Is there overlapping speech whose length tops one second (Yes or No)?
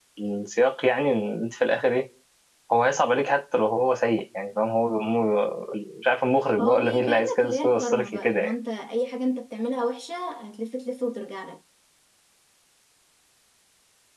Yes